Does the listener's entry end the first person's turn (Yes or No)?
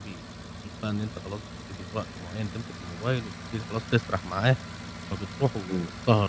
No